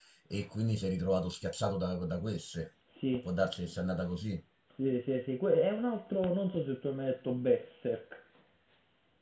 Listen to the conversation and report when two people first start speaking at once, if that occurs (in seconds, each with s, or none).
none